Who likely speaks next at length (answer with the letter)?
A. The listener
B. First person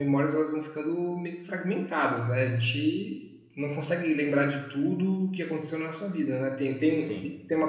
B